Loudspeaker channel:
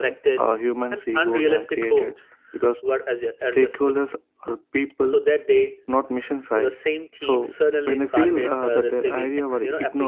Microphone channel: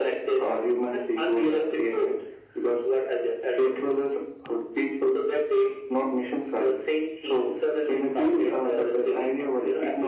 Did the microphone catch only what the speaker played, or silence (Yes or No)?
Yes